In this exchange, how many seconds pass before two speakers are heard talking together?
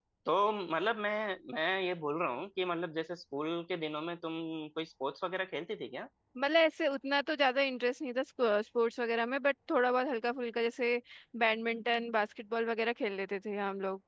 none

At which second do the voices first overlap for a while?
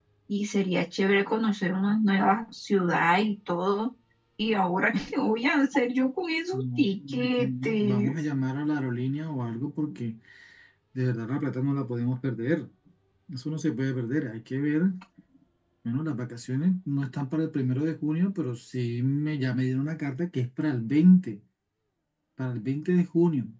6.5 s

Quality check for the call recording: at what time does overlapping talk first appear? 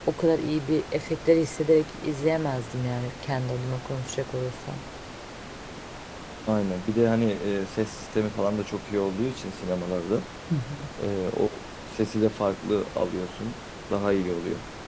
none

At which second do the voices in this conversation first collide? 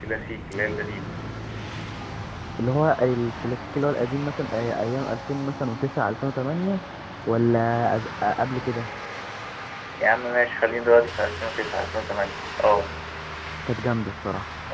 none

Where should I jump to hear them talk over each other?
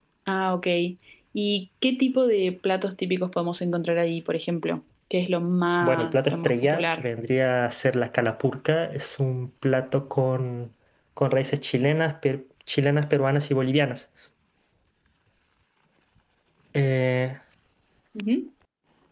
5.8 s

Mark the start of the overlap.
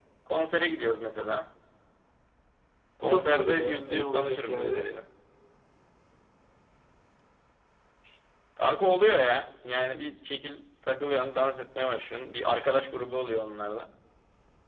3.0 s

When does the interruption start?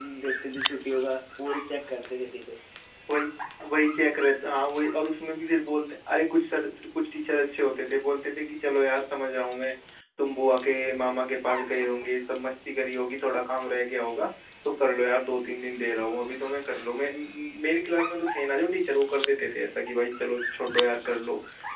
none

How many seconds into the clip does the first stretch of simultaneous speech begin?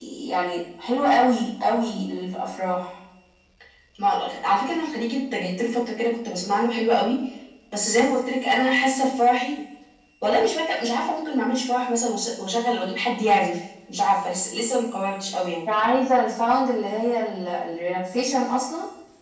none

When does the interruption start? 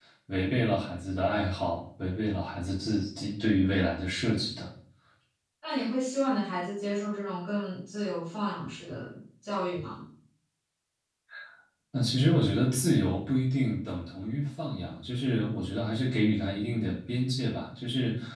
none

